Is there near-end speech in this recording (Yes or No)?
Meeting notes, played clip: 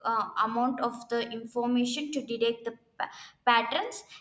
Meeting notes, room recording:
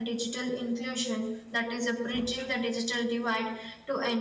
Yes